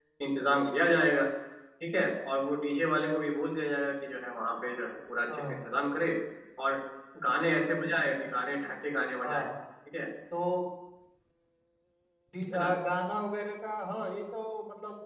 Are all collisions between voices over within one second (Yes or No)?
Yes